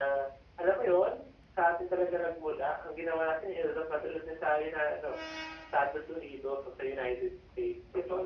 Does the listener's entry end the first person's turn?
Yes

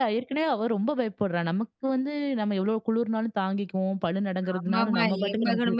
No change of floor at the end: No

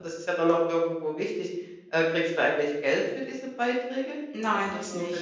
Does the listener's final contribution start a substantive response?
Yes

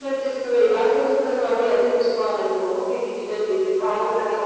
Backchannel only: No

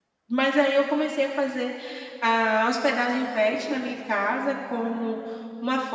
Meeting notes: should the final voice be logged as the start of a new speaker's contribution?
No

